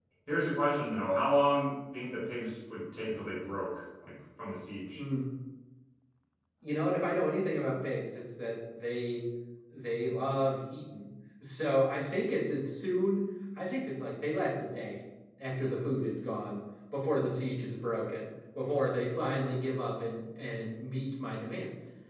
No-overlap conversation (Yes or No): Yes